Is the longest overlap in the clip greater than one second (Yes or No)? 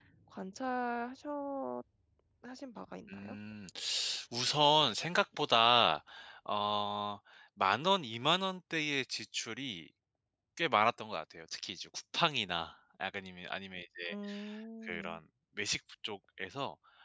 No